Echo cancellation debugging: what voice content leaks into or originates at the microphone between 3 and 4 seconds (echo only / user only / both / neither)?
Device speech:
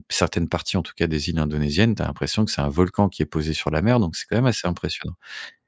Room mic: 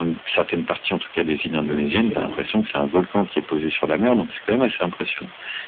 echo only